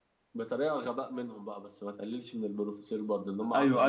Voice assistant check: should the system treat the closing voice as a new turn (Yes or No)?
Yes